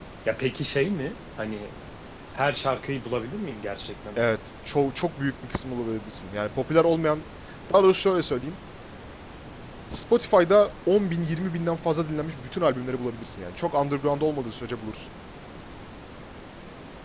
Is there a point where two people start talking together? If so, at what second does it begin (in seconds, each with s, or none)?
none